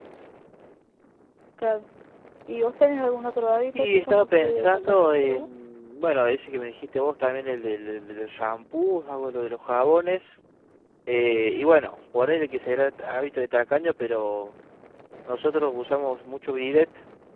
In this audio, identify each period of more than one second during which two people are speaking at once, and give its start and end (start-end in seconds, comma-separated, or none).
3.7-5.5